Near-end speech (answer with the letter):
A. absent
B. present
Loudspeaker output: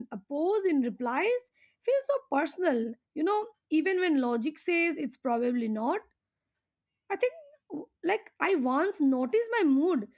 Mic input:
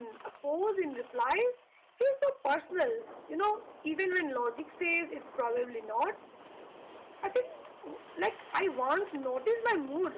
A